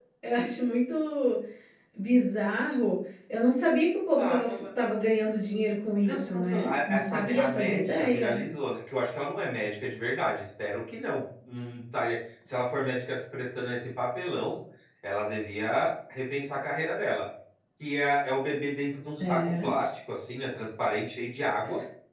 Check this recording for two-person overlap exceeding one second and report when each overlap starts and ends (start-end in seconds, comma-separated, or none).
6.0-8.4